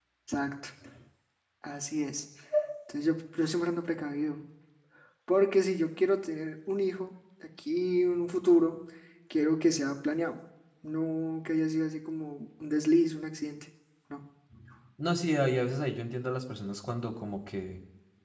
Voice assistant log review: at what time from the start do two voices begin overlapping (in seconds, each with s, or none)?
none